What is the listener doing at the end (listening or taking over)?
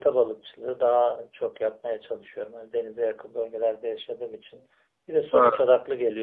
listening